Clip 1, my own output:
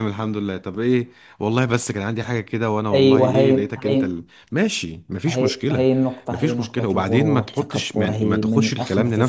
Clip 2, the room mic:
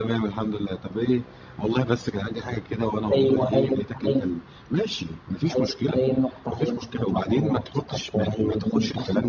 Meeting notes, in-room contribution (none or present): none